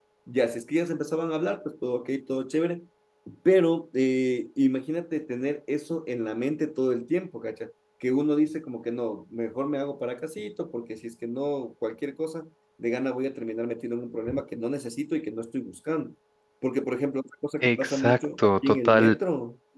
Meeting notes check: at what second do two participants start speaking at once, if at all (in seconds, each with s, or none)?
17.6 s